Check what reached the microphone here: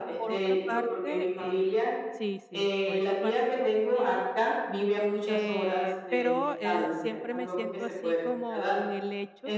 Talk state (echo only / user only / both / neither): both